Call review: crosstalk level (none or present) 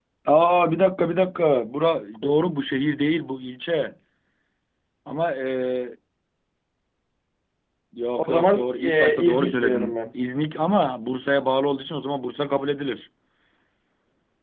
present